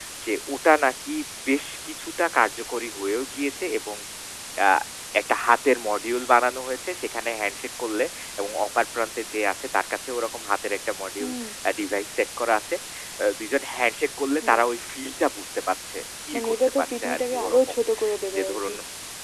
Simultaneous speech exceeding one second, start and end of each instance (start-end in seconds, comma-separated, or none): 16.3-17.8